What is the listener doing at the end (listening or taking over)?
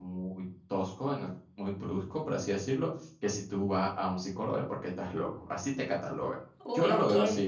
taking over